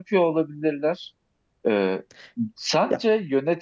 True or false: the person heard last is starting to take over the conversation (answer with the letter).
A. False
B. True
A